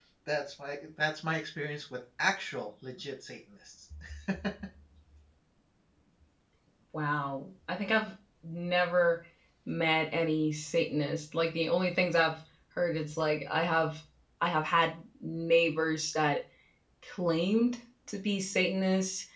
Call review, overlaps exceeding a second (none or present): none